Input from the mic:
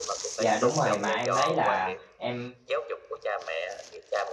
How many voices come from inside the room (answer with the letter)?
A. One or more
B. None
A